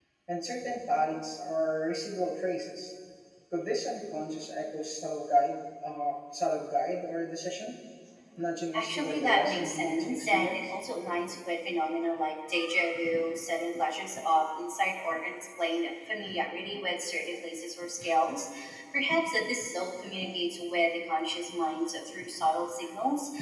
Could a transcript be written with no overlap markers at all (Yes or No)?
No